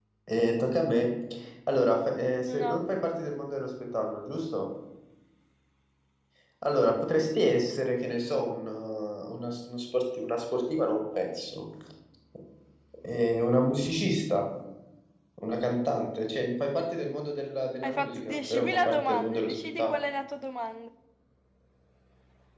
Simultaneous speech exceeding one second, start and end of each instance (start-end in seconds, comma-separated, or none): 17.8-19.9